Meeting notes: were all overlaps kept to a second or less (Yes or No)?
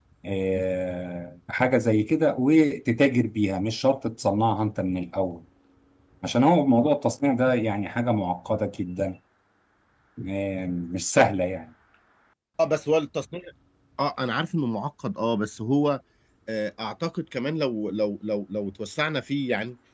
Yes